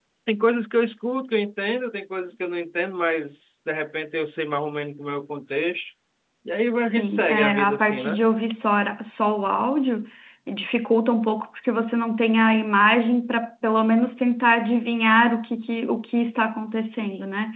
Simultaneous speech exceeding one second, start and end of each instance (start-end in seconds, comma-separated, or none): 6.8-8.2